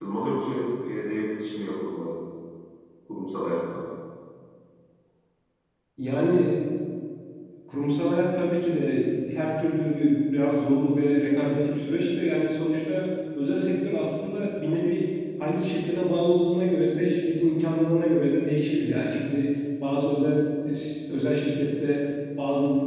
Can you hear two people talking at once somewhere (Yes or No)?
No